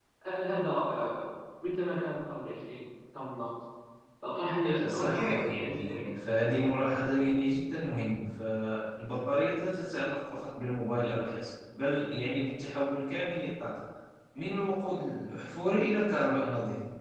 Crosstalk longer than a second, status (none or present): present